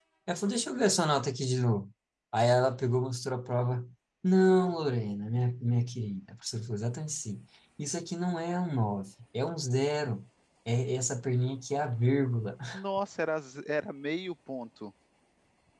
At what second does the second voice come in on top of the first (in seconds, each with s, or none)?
none